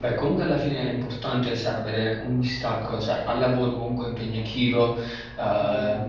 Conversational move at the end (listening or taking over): listening